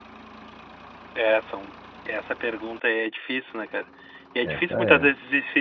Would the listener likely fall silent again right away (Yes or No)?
Yes